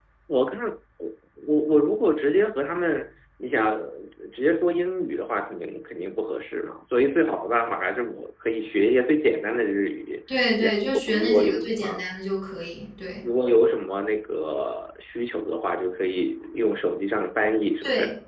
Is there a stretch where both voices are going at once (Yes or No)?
Yes